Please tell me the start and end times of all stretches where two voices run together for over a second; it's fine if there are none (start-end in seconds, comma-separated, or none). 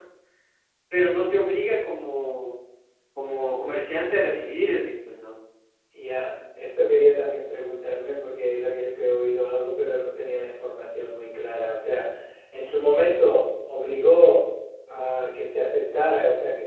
none